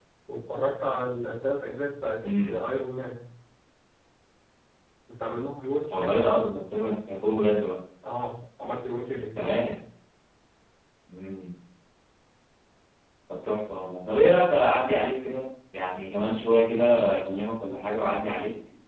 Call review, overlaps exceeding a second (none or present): none